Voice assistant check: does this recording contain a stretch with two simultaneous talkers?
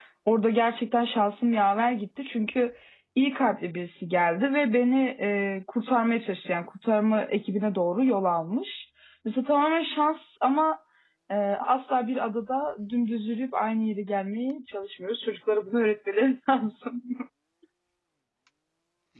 No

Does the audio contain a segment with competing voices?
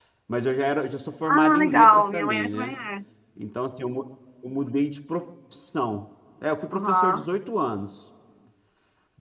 Yes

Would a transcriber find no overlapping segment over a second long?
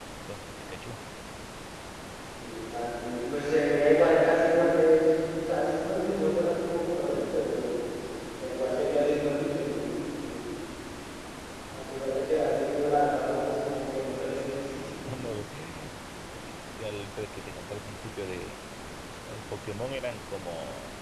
Yes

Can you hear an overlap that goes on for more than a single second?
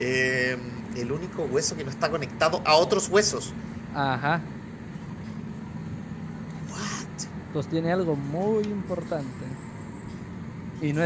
No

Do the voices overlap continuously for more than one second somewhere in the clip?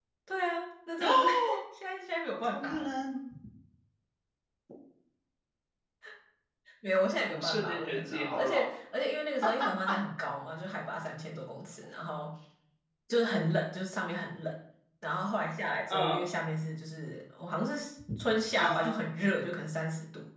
Yes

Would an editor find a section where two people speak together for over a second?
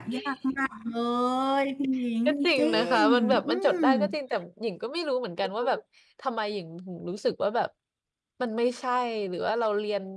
Yes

